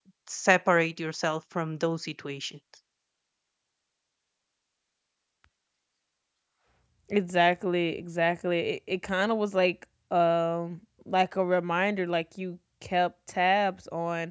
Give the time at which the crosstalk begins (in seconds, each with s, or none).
none